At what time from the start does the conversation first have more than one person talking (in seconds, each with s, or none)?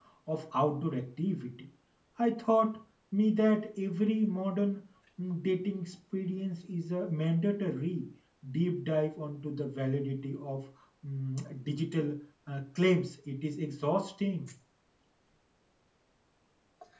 none